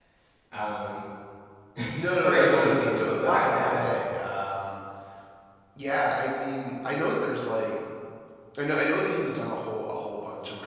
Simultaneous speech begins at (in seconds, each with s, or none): 2.2 s